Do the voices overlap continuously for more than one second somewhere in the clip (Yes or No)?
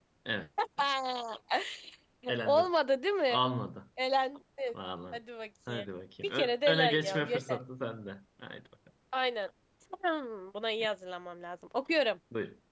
Yes